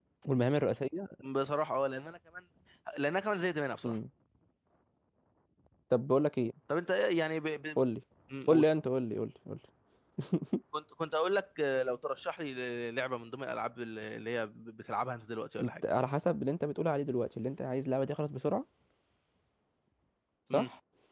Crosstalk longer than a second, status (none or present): none